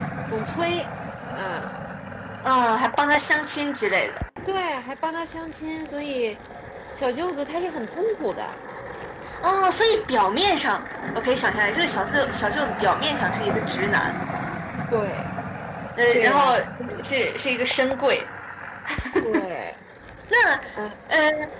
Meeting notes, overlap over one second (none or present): none